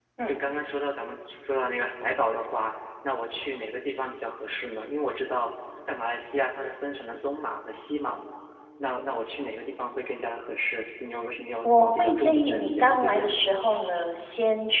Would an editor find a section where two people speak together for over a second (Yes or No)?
Yes